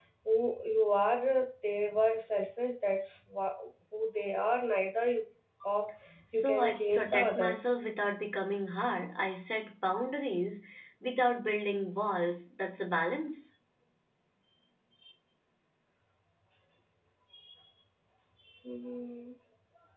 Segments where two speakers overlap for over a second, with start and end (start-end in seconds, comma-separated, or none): 6.3-7.6